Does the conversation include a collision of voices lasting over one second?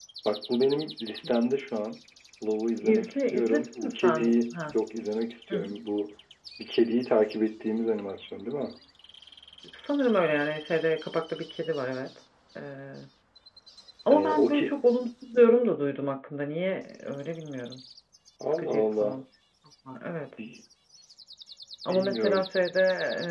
Yes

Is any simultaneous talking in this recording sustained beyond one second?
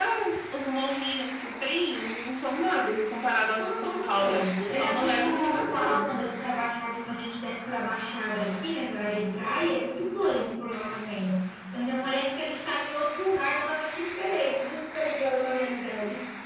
Yes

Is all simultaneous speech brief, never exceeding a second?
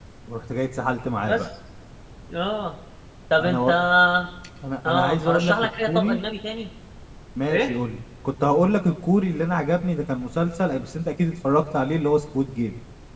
No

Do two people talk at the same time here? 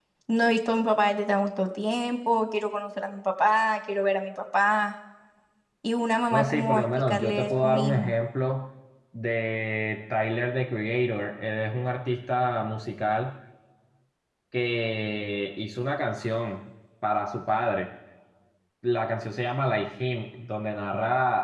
Yes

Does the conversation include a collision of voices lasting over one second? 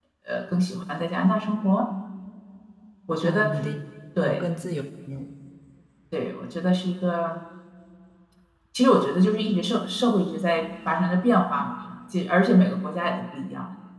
No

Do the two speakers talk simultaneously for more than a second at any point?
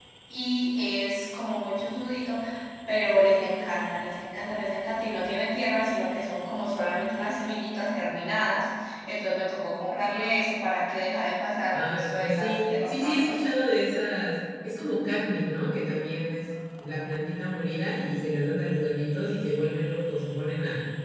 Yes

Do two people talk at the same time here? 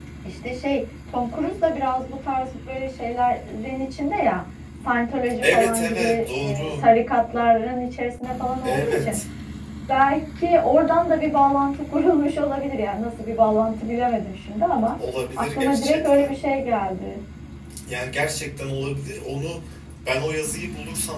Yes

